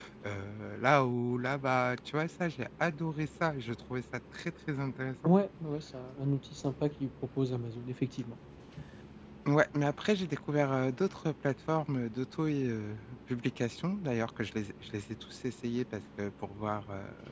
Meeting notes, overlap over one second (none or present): none